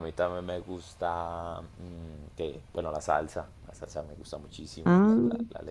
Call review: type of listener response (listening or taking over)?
listening